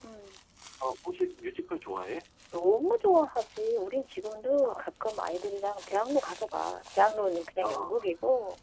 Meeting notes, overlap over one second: none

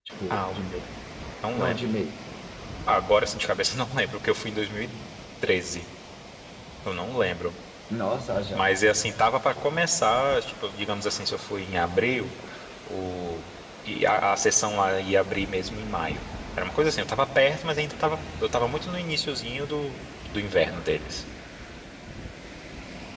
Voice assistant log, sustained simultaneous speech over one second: none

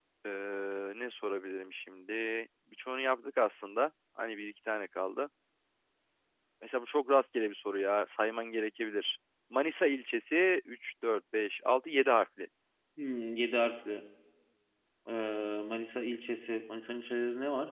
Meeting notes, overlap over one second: none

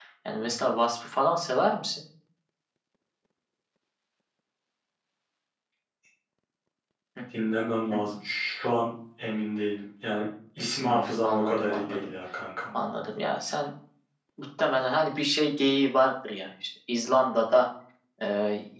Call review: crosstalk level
present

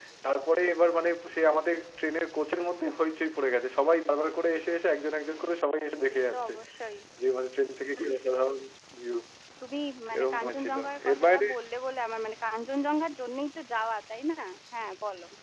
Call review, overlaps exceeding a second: present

